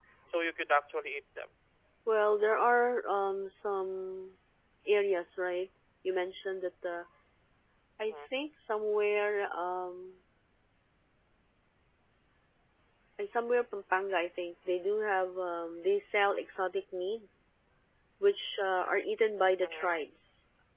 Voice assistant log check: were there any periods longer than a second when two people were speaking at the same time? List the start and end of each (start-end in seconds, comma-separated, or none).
none